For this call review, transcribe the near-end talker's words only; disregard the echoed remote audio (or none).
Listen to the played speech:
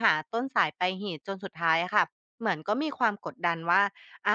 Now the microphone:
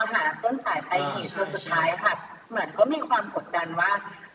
อาใช่ๆครับ